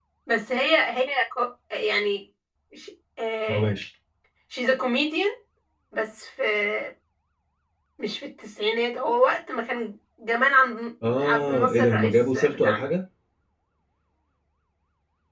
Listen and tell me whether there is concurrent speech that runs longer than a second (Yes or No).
Yes